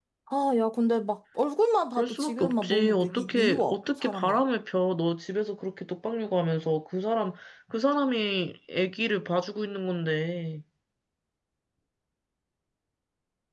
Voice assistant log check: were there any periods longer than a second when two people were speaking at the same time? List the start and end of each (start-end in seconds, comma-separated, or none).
2.0-4.4